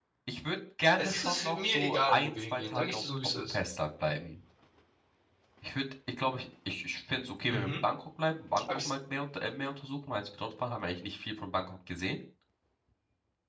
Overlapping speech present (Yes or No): Yes